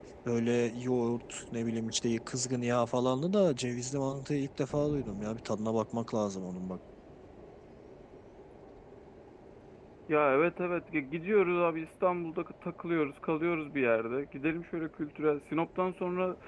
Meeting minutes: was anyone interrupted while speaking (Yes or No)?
No